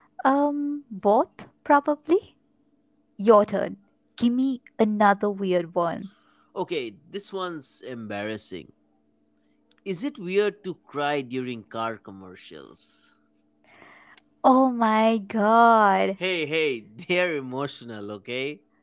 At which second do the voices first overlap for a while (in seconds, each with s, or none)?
none